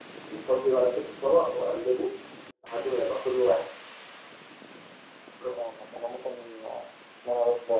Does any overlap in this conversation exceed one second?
No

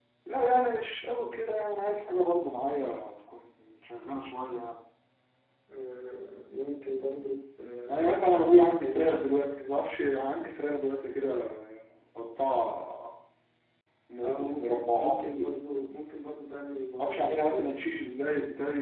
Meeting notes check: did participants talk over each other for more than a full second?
Yes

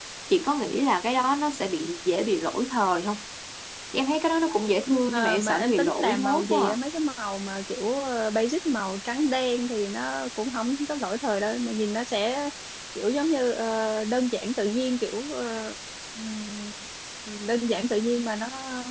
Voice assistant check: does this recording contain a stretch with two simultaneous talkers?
Yes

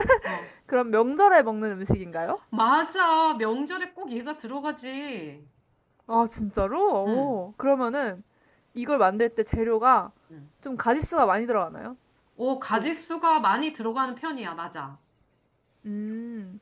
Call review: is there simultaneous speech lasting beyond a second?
No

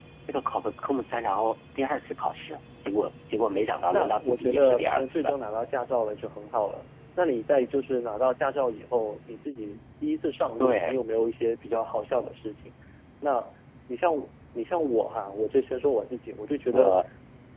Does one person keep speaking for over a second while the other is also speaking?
Yes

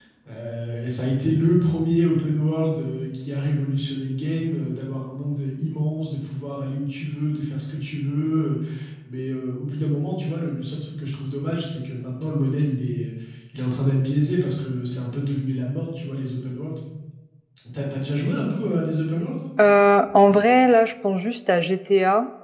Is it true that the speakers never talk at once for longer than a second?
Yes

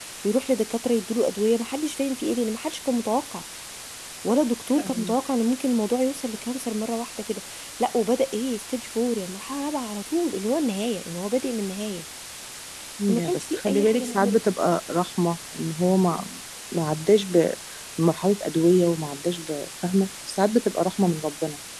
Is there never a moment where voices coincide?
No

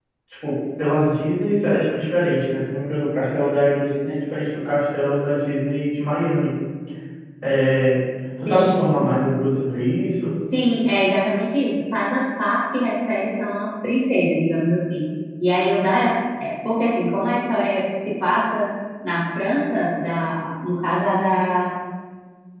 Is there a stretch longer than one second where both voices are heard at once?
No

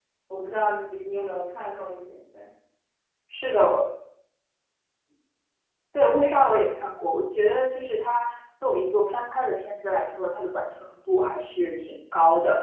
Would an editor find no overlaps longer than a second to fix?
Yes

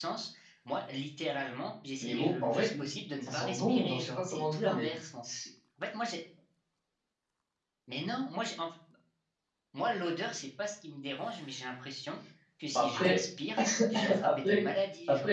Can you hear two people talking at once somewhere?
Yes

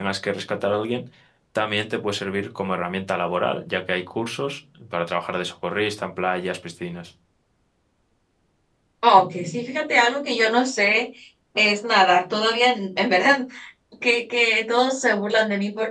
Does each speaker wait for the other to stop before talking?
Yes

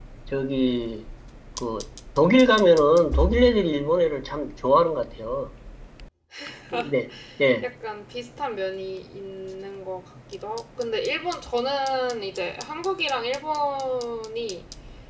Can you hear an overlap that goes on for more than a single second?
No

